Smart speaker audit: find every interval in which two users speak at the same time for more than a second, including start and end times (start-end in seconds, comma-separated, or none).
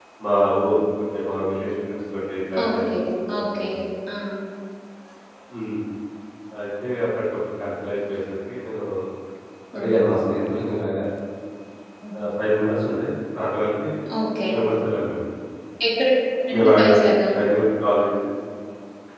none